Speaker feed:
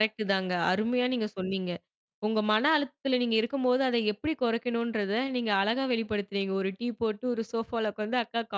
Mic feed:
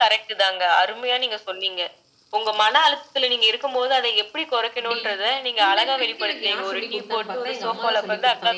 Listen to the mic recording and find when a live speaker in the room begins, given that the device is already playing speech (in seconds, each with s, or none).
4.8 s